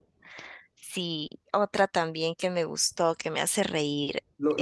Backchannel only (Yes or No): No